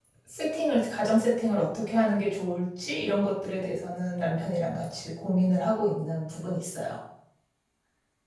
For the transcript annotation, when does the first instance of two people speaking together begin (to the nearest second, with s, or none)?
none